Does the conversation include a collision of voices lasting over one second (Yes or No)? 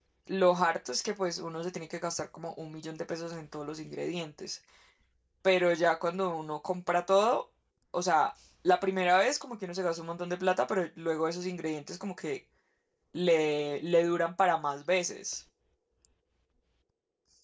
No